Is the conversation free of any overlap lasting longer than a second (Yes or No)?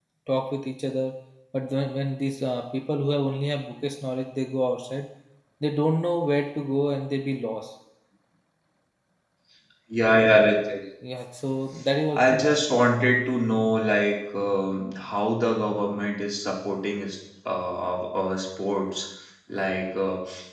Yes